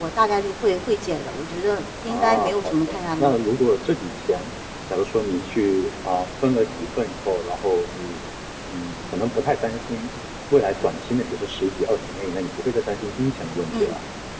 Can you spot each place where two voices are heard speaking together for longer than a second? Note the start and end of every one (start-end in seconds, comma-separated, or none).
2.0-3.3